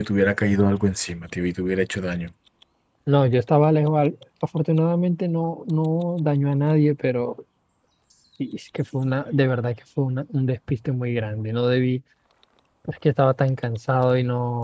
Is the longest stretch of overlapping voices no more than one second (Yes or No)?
Yes